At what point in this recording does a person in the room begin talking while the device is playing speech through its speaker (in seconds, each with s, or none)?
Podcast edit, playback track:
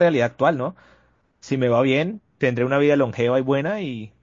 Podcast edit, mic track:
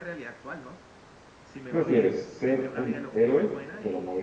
1.6 s